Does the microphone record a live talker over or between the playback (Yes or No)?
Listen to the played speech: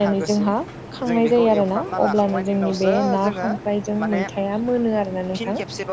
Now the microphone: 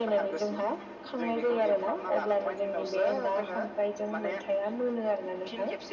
No